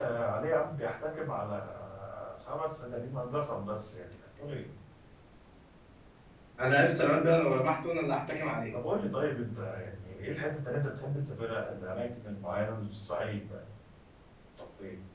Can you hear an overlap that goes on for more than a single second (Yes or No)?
No